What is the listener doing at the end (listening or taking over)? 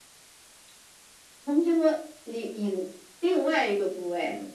taking over